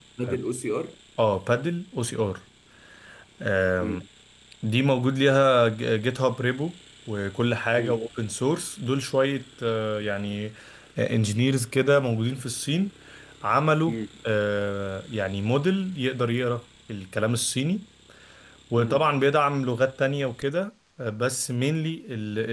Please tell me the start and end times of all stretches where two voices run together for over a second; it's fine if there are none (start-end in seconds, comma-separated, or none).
none